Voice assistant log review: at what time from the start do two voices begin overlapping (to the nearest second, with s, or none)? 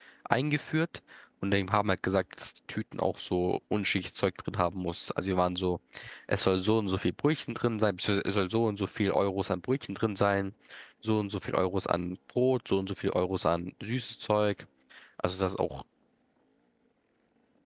none